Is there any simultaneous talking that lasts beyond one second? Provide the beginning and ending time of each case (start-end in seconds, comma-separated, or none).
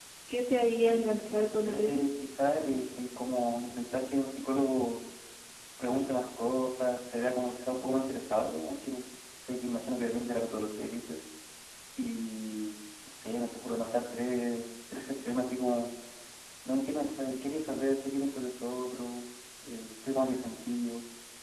0.8-2.0